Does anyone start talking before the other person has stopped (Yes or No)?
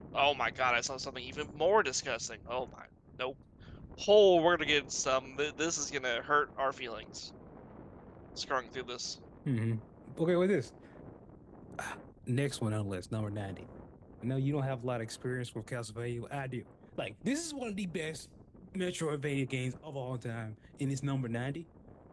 No